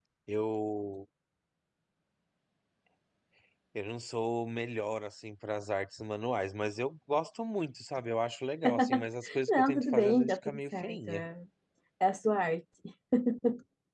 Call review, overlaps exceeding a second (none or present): present